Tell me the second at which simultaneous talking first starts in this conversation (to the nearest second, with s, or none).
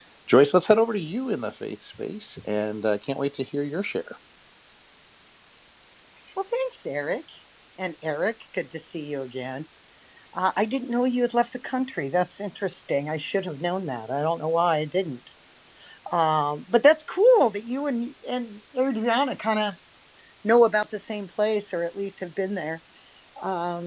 none